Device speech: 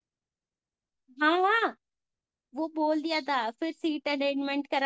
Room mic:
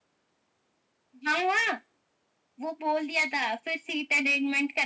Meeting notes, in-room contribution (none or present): none